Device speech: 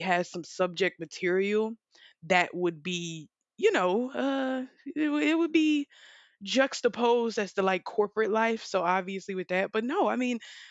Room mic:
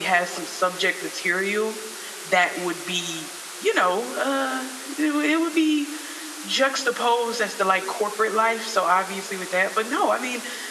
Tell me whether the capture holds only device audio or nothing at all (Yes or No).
Yes